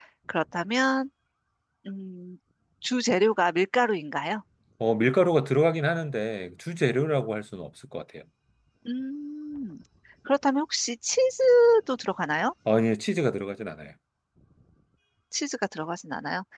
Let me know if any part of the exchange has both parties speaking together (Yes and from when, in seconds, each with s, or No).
No